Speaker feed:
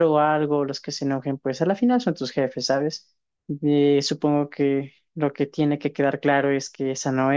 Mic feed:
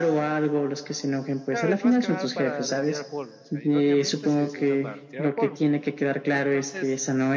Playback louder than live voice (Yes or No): Yes